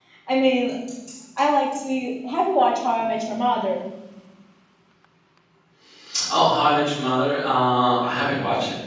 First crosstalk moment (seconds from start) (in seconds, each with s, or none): none